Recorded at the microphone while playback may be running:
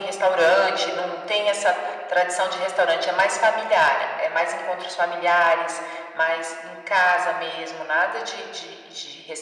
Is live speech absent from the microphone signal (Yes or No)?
Yes